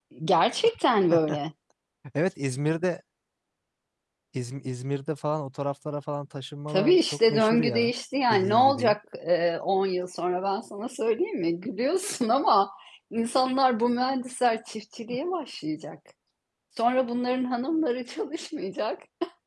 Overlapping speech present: Yes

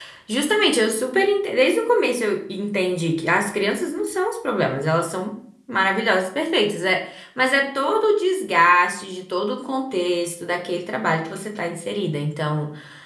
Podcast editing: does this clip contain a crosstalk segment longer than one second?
No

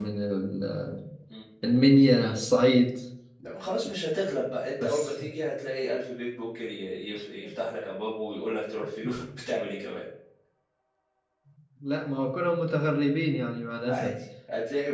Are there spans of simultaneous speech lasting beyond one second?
No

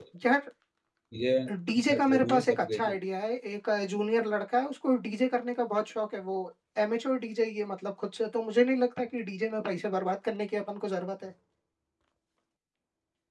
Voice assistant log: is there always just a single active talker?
No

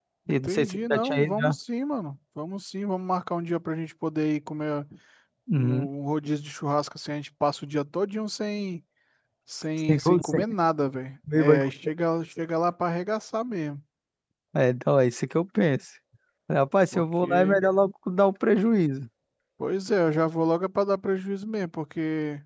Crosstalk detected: Yes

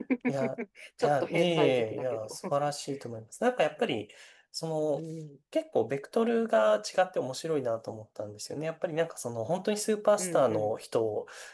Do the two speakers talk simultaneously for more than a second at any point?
Yes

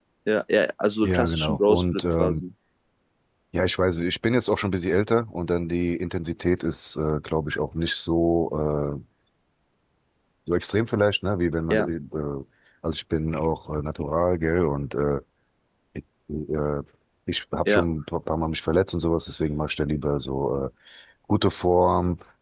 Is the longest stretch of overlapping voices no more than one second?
No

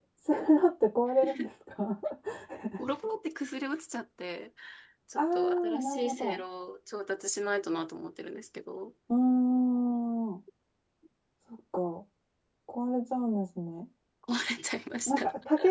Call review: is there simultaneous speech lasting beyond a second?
Yes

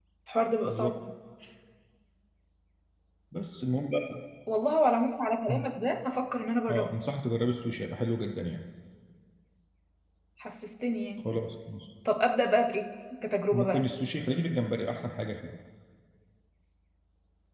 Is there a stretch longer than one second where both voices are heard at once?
No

